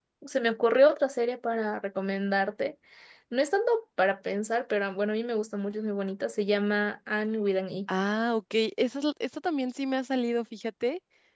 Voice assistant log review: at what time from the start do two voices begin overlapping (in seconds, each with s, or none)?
none